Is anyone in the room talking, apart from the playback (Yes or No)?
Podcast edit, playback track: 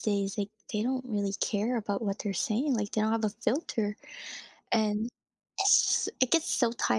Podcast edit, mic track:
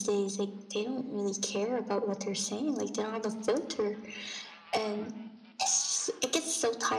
No